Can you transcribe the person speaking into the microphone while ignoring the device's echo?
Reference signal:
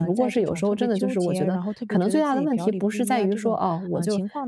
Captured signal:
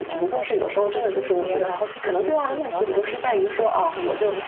嗯，了解了。

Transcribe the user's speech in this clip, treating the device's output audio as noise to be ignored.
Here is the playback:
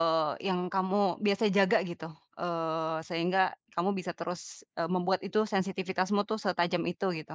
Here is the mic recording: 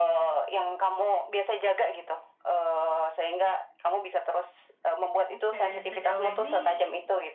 Oke sejauh ini

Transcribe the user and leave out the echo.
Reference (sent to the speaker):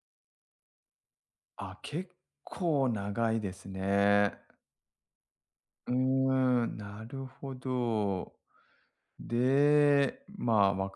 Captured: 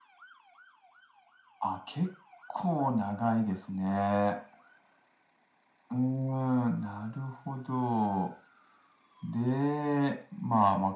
none

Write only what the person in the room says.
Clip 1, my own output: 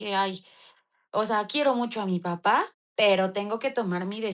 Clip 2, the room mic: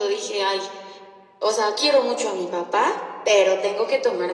none

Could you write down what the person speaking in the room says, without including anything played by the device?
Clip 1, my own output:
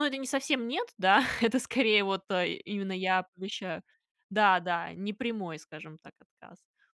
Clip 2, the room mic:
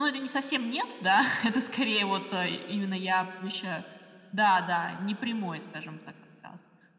none

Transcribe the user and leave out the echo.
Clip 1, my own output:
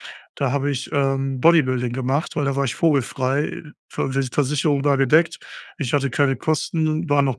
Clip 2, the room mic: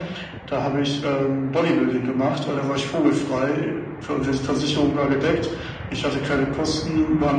none

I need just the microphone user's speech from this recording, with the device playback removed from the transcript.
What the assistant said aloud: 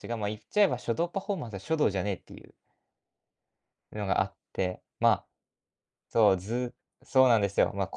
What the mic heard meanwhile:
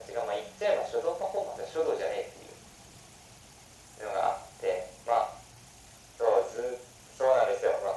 none

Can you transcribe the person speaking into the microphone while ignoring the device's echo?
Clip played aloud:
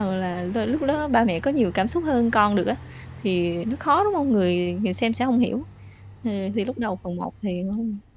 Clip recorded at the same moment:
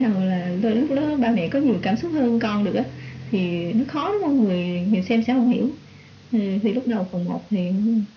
none

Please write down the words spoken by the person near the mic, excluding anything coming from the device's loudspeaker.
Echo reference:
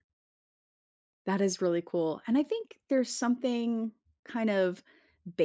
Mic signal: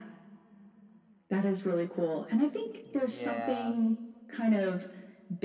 Yeah.

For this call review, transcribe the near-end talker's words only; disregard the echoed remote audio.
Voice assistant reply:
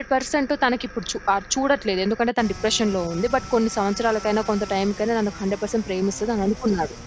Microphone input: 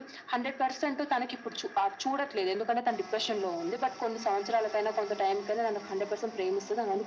none

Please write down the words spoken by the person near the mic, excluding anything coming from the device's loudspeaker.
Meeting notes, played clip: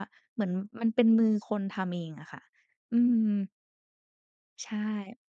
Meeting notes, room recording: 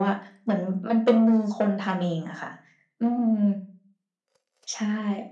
none

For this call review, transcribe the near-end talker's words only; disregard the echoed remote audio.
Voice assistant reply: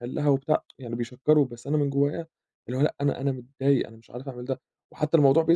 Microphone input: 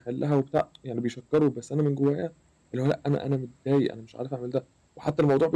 none

